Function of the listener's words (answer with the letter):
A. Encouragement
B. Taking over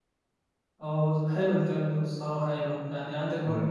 A